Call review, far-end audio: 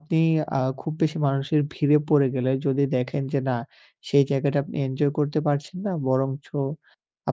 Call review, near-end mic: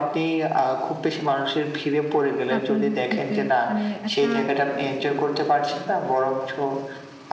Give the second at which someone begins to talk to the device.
2.5 s

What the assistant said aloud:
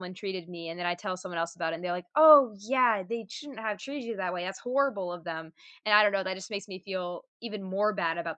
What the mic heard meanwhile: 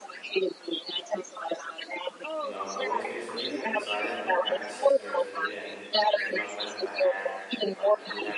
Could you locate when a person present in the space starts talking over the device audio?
2.4 s

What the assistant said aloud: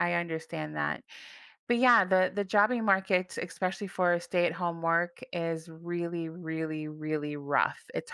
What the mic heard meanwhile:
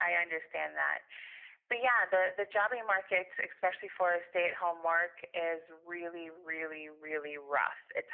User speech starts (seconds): none

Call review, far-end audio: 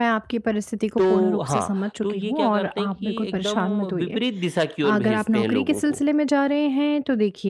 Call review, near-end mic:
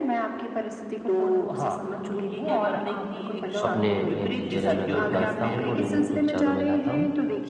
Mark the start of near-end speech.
3.6 s

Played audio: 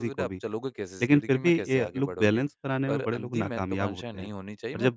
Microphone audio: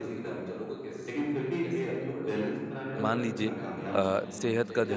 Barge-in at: 3.0 s

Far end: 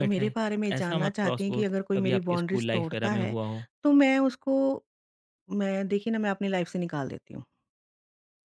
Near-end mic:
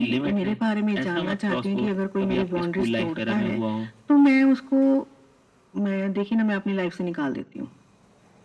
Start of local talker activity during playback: none

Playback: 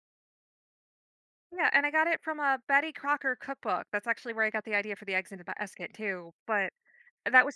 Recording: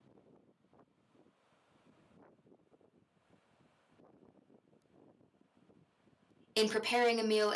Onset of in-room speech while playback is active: 6.5 s

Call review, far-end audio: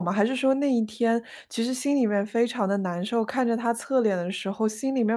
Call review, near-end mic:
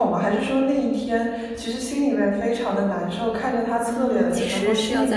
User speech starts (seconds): 3.9 s

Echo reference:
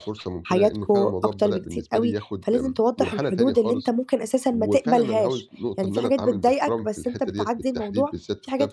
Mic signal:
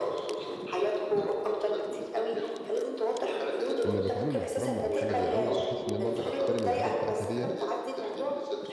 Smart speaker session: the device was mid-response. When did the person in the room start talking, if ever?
3.9 s

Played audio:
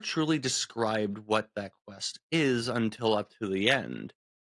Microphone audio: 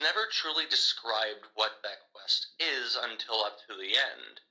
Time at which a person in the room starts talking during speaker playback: none

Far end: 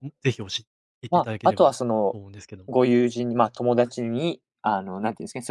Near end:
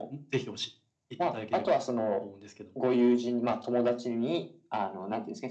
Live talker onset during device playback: none

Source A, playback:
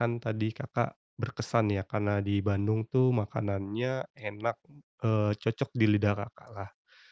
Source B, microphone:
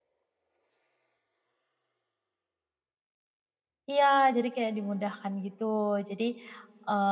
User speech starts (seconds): 3.9 s

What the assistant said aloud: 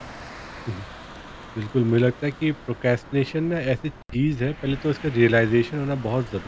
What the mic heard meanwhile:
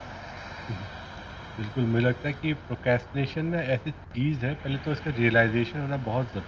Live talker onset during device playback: none

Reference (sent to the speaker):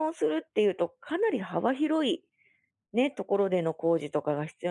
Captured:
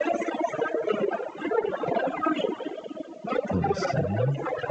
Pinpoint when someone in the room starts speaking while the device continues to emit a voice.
3.6 s

